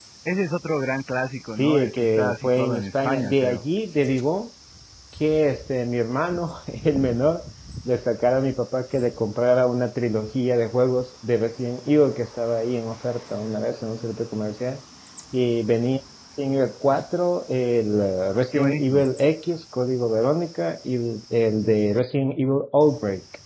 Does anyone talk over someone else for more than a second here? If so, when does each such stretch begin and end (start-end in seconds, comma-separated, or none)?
1.5-3.6